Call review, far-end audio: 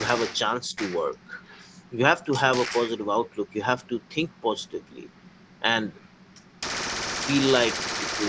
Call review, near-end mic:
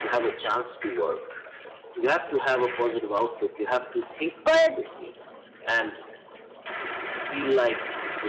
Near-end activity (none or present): present